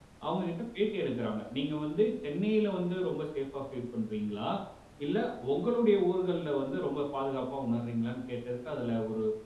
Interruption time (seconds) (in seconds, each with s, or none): none